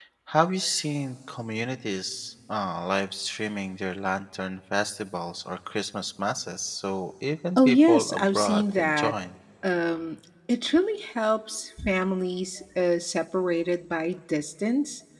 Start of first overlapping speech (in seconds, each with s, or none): 7.6 s